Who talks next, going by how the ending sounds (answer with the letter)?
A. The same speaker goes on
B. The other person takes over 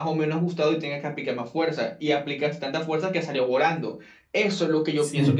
A